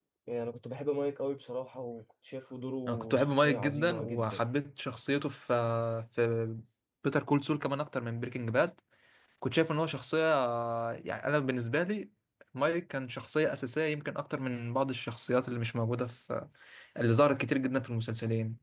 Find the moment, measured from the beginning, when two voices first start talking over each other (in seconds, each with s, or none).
2.9 s